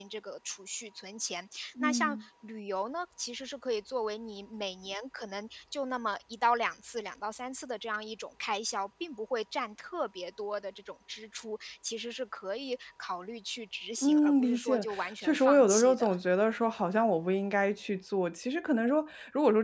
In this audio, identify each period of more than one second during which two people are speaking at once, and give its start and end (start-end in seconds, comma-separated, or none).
14.0-16.1